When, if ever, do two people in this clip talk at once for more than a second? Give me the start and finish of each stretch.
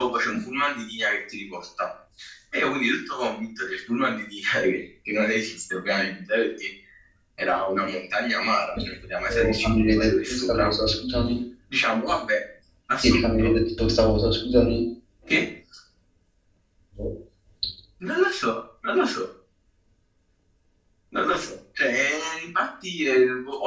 9.3-10.7

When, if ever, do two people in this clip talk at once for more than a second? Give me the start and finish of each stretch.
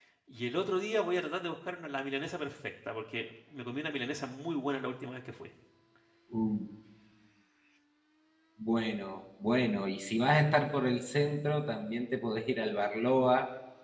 none

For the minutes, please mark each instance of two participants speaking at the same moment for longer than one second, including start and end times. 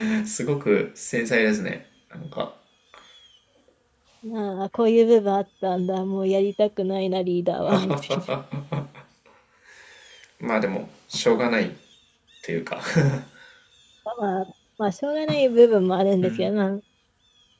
none

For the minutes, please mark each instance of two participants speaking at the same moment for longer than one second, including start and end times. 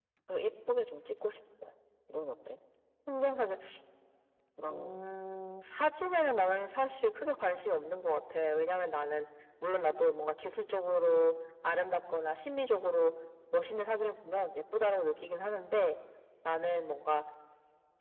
none

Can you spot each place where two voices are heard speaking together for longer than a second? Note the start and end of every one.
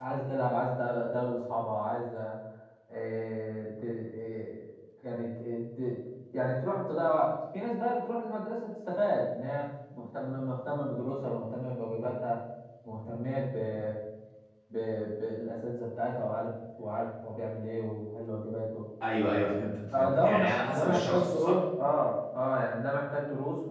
19.9-21.6

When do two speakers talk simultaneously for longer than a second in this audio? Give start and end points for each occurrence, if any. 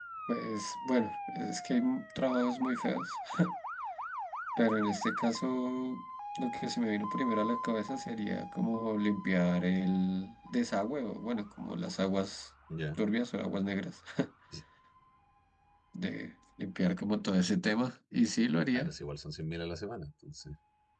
none

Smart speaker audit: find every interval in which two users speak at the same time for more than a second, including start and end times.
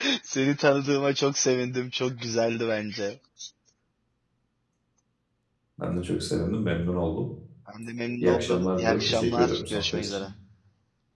8.2-10.3

